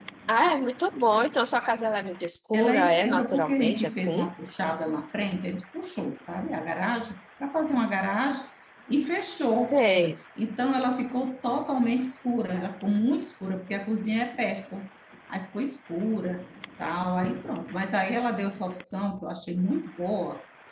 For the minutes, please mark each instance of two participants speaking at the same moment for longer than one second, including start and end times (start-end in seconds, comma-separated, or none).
2.5-4.3